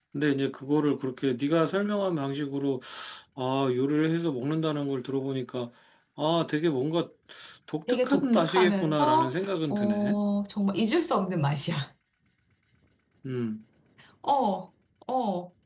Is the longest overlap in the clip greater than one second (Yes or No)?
Yes